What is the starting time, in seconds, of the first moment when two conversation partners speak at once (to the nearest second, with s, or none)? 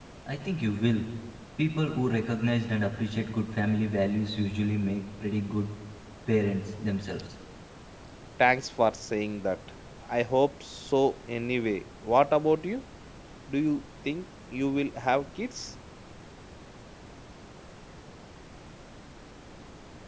none